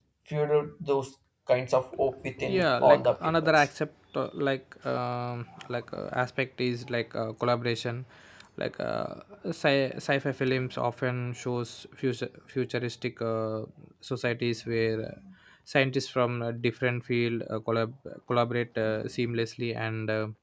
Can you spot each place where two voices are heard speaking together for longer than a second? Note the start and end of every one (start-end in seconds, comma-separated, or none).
2.4-3.7